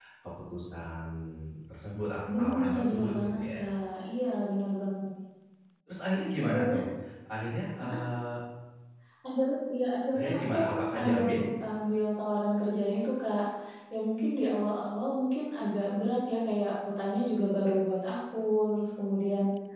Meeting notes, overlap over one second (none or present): present